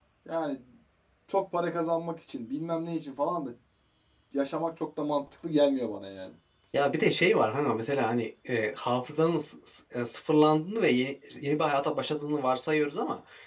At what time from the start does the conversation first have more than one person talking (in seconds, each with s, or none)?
none